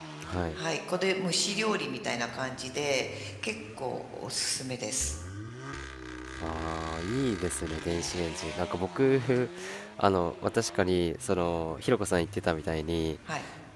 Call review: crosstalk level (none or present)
none